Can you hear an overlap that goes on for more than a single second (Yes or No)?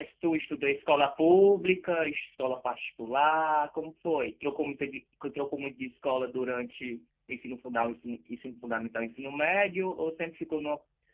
No